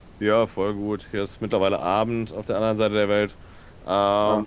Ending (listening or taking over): listening